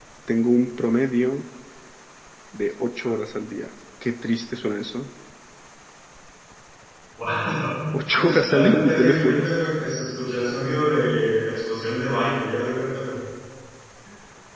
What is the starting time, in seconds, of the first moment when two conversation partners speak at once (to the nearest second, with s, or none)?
8 s